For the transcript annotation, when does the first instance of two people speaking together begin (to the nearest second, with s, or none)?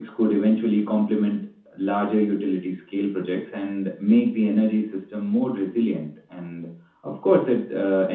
none